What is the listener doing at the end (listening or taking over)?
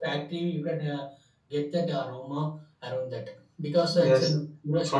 taking over